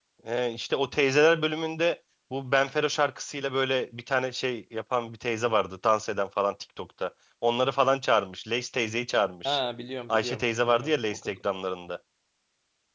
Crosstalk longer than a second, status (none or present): present